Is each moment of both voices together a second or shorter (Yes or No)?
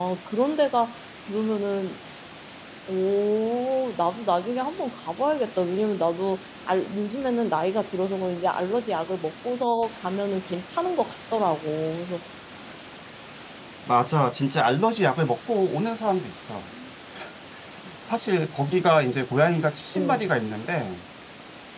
Yes